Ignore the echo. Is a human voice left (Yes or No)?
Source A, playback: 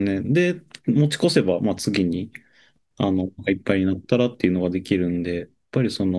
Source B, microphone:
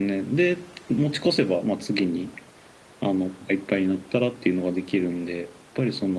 No